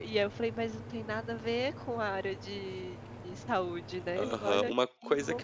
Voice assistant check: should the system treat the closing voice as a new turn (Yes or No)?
Yes